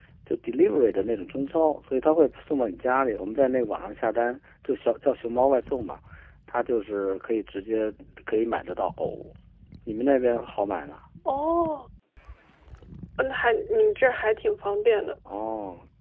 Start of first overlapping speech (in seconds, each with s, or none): none